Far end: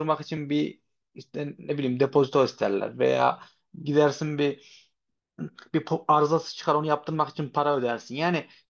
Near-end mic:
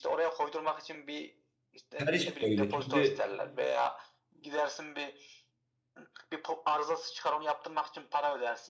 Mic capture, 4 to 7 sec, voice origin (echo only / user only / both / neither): echo only